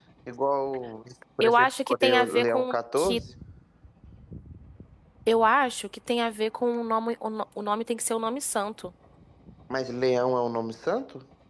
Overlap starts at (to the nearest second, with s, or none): 1 s